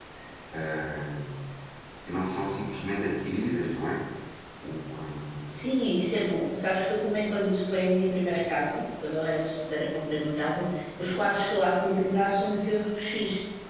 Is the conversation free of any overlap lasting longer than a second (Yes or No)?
Yes